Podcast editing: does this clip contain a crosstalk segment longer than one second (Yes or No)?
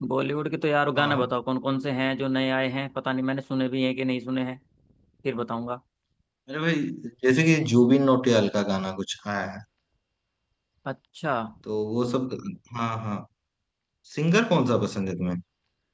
No